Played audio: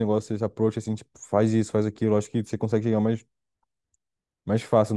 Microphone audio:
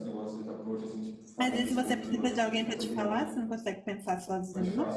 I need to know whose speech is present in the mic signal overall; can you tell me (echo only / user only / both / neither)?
both